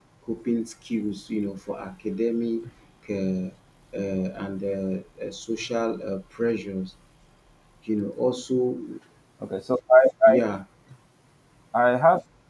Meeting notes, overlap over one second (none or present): none